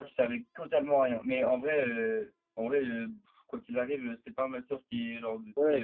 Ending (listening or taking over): taking over